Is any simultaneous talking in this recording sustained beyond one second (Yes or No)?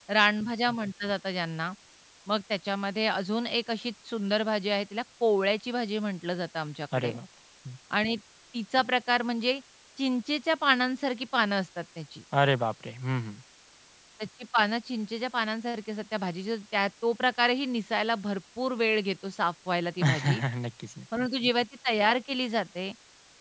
No